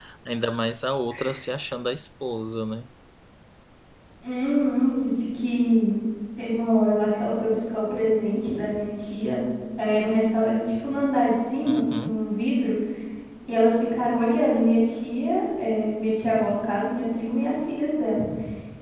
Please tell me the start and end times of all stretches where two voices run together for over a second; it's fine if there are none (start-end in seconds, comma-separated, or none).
none